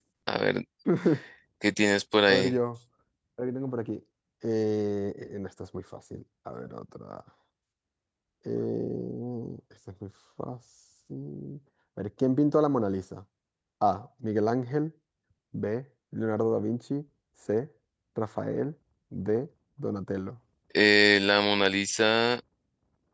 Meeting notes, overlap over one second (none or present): none